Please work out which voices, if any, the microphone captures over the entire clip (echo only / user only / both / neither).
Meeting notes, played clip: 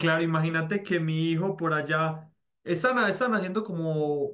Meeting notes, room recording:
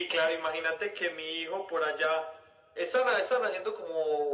echo only